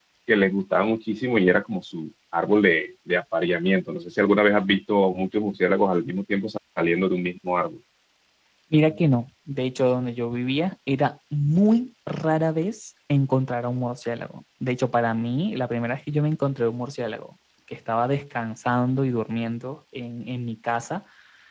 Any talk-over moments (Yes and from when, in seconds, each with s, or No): No